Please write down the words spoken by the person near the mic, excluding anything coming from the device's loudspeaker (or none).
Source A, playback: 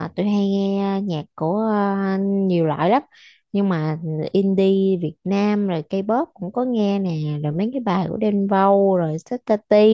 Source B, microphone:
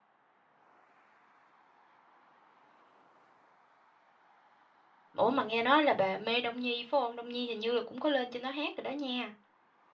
Ủa mà nghe nói là bà mê Đông Nhi phải không? Đông Nhi hình như là cũng có lên trên đó hát rồi đó nha.